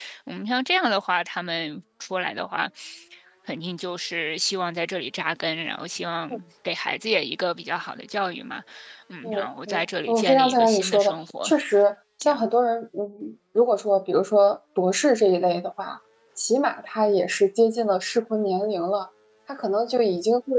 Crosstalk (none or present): present